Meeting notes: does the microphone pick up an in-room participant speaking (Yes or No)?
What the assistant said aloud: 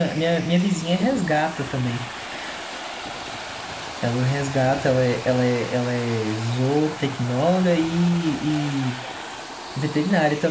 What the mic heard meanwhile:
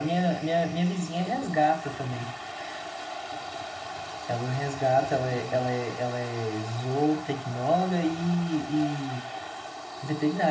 Yes